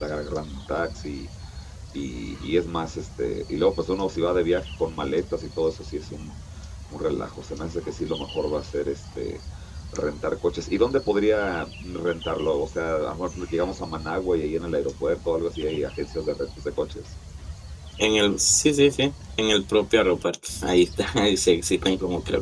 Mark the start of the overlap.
none

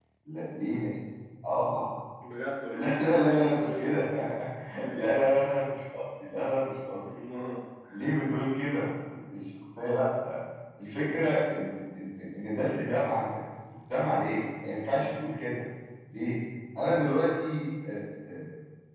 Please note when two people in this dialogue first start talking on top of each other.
3 s

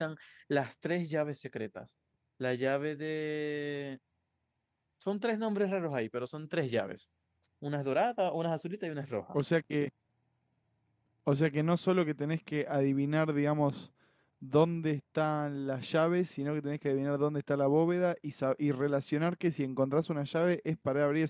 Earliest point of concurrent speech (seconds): none

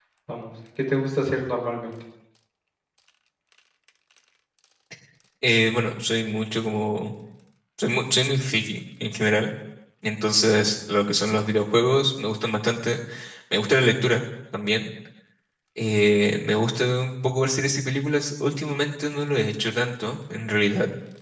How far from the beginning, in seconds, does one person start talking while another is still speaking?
none

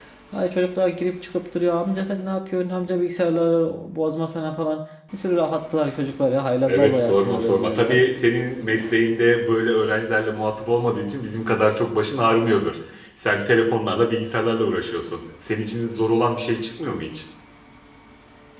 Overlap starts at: 7 s

